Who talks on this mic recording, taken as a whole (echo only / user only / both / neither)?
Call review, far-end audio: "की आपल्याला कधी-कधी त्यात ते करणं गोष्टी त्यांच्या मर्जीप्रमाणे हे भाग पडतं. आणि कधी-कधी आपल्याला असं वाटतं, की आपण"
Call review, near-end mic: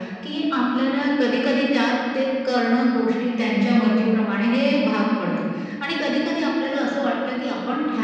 echo only